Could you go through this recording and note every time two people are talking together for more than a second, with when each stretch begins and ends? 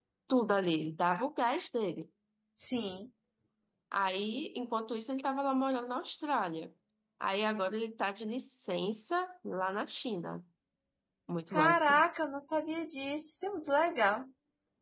none

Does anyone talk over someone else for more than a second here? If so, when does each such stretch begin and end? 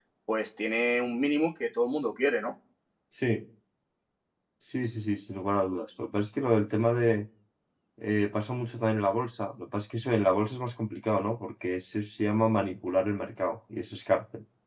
none

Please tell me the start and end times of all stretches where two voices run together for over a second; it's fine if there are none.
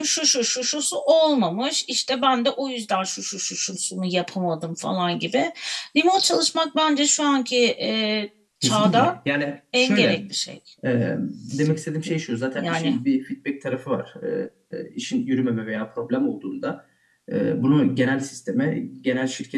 none

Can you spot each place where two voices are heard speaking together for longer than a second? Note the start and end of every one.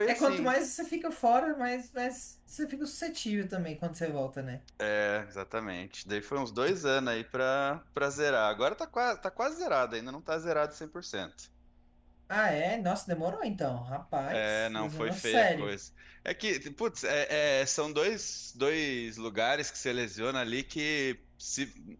14.3-15.7

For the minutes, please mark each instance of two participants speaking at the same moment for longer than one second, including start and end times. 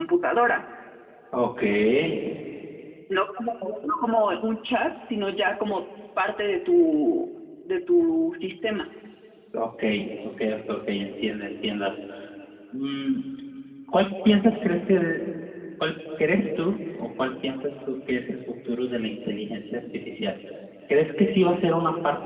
none

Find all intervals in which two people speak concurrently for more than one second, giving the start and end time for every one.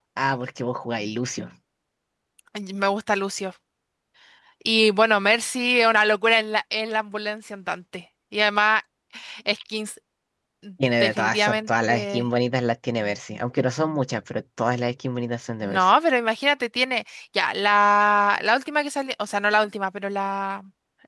11.0-12.2

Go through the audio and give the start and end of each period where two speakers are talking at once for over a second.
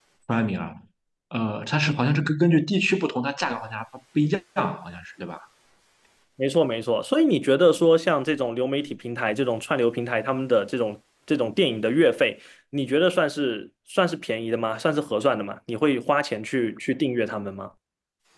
none

